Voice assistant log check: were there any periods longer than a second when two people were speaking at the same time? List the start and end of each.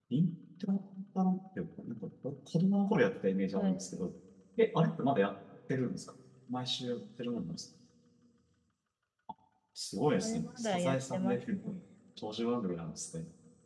10.2-11.8

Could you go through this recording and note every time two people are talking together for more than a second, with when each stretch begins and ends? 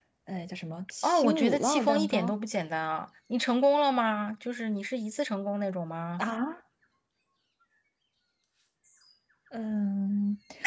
1.0-2.3

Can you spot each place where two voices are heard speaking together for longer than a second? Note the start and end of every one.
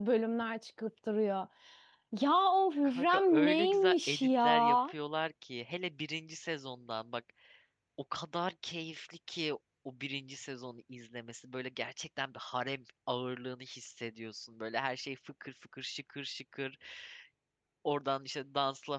2.8-4.8

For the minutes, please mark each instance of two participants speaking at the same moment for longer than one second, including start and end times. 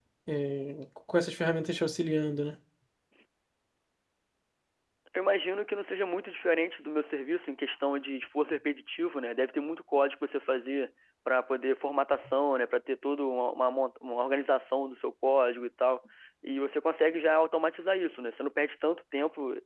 none

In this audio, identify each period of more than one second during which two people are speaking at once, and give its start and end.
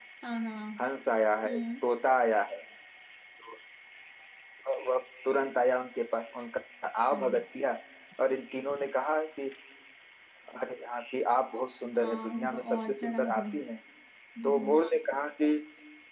11.9-13.6

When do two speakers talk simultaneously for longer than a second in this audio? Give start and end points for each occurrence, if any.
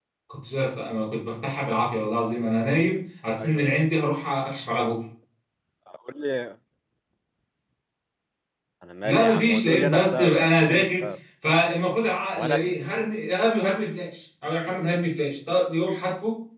9.0-11.1

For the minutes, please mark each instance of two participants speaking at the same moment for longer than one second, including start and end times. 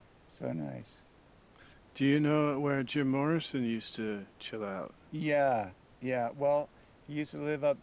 none

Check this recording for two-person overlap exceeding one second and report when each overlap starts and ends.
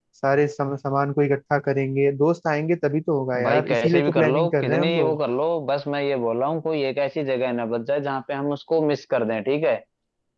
3.4-5.2

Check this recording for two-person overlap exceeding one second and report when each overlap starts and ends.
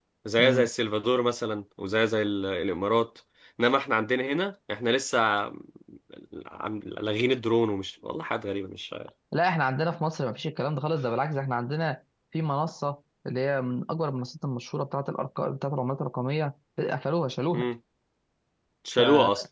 none

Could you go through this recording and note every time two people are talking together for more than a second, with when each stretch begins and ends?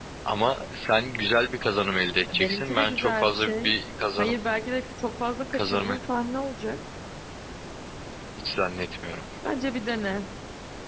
2.3-3.7

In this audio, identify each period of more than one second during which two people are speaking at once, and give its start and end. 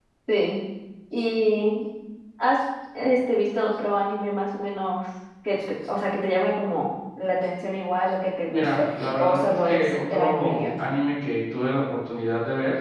8.5-10.7

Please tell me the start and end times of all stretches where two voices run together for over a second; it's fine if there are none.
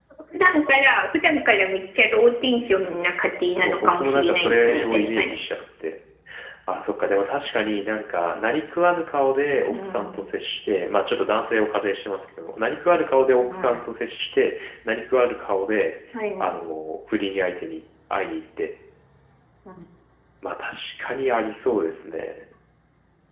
3.5-5.3

